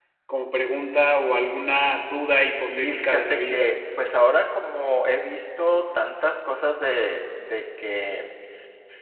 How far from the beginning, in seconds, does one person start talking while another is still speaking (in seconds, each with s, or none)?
2.4 s